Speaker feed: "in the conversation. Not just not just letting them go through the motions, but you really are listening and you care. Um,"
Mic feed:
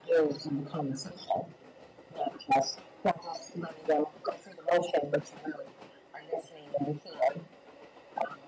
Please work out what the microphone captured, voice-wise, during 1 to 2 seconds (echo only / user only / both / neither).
echo only